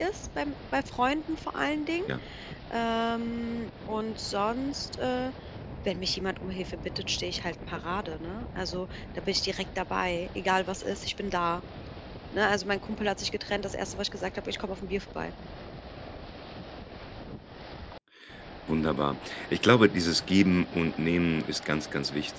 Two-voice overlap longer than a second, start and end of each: none

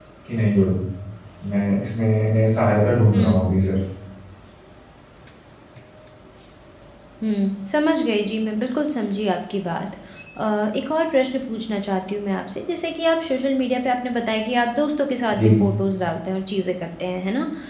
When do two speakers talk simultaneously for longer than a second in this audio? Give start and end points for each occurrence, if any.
none

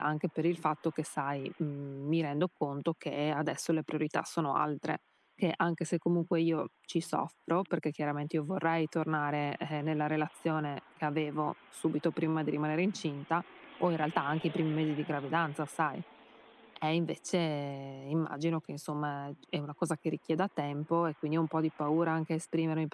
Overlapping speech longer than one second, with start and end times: none

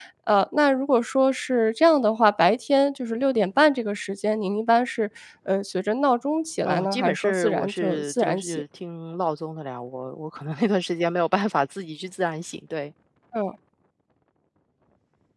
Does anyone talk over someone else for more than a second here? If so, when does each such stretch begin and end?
6.6-8.6

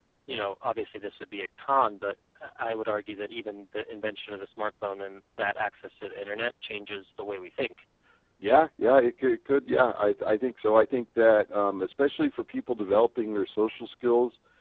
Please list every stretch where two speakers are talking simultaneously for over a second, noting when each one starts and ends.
none

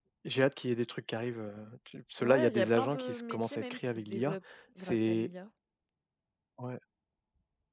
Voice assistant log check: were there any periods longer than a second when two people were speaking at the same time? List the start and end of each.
2.2-4.4

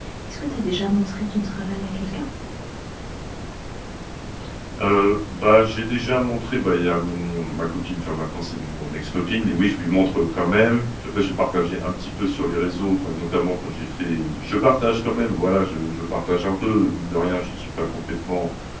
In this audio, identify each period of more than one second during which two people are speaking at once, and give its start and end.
none

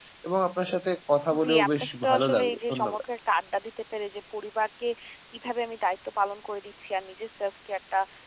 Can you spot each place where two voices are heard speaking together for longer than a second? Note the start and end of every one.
1.4-3.0

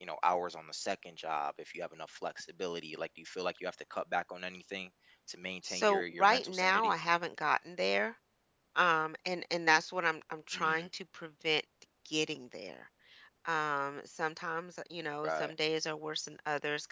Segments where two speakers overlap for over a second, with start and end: 5.6-6.9

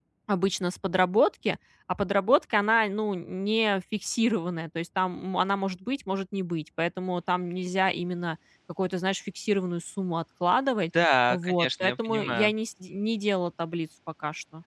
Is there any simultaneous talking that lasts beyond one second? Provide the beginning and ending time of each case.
11.3-12.5

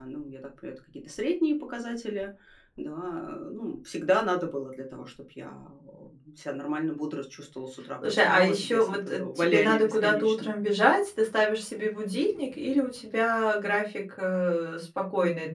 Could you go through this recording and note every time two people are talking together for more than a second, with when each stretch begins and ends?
8.1-10.6

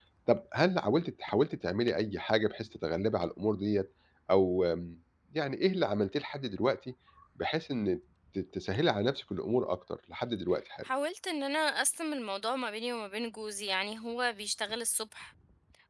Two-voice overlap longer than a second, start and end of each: none

